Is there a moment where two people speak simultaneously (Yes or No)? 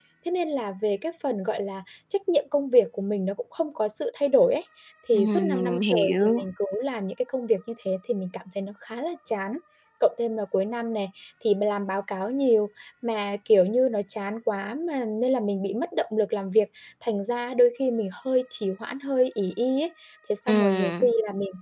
Yes